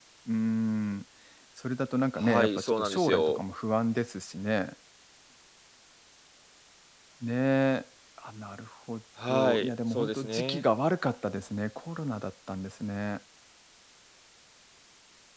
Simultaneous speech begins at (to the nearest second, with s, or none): 2 s